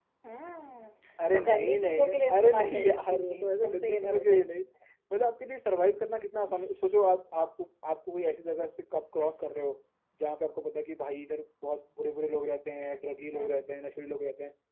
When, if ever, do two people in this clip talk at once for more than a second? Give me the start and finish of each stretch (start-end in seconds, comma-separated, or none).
1.3-4.4